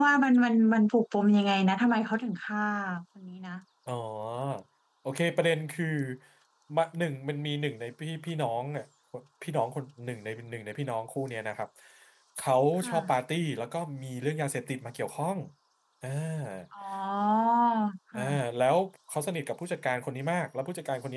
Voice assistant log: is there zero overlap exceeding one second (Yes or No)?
Yes